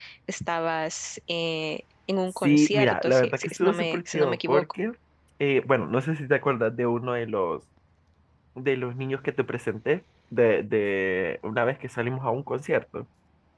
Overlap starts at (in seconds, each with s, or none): 2.4 s